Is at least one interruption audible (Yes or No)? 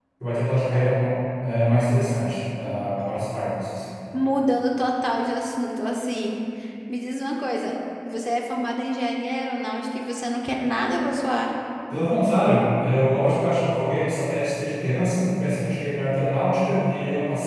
No